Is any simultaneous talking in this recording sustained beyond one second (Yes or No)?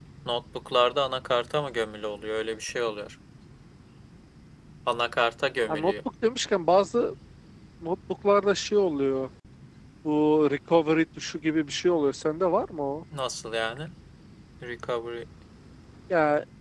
No